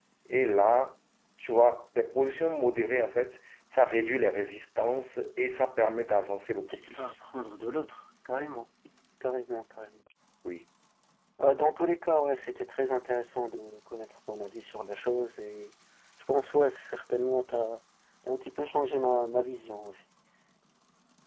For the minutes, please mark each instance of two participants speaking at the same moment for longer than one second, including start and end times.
none

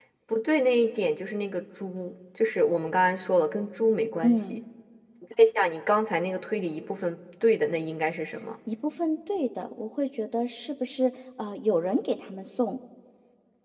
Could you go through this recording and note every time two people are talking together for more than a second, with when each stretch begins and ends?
none

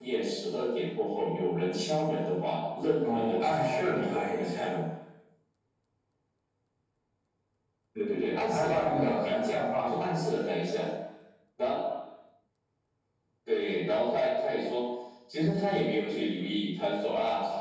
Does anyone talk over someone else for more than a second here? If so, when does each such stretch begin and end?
3.0-4.7, 8.4-10.0

